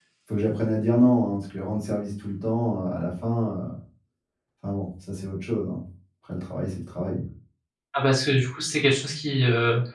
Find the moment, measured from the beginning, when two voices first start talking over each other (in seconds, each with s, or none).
none